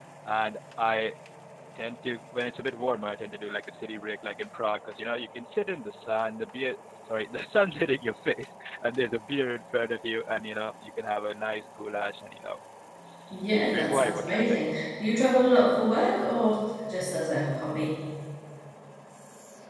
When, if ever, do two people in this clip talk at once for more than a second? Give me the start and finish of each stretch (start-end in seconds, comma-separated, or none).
13.3-14.6